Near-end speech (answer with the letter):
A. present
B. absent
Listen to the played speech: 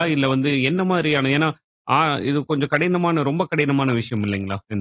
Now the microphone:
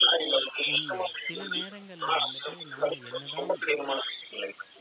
A